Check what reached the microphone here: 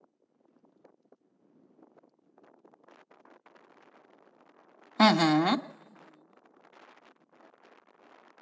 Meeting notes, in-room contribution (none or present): present